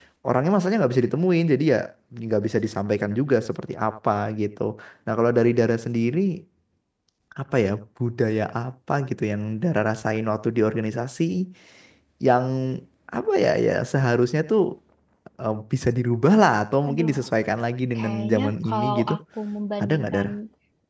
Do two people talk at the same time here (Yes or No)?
Yes